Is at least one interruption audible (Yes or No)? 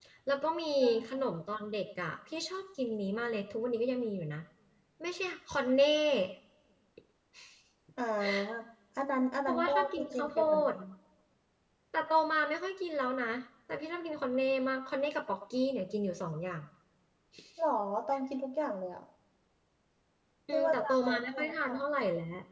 Yes